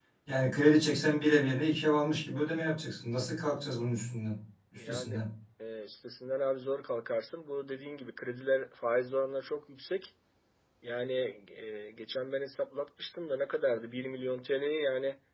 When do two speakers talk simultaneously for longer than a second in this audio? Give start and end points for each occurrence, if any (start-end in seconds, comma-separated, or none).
none